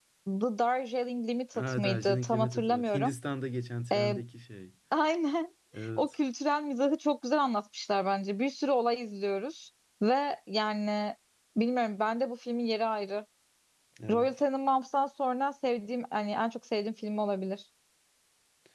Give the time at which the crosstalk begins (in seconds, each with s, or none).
1.5 s